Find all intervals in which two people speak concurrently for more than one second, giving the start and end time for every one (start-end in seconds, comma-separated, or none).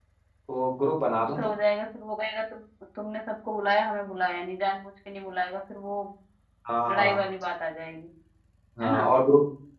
none